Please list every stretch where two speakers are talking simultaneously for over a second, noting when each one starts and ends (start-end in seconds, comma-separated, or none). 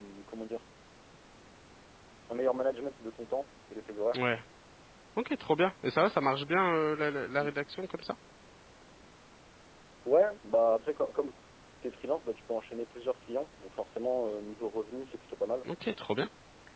none